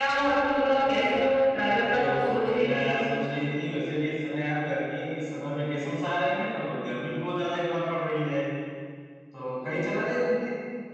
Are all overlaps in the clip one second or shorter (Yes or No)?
No